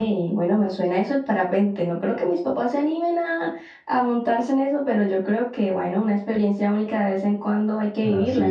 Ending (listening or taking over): taking over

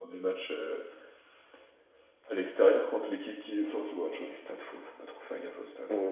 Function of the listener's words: taking over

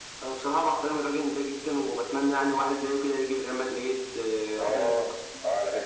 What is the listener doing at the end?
taking over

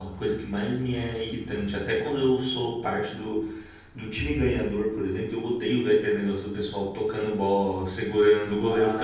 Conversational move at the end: taking over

